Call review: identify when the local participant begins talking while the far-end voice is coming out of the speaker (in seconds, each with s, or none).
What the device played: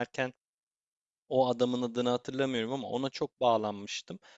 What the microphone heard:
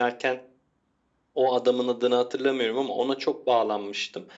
none